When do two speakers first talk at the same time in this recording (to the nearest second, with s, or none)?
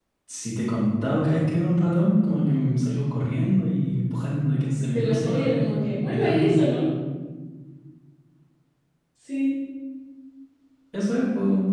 5 s